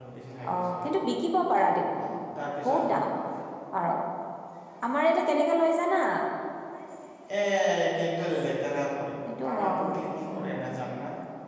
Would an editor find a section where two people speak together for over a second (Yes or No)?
Yes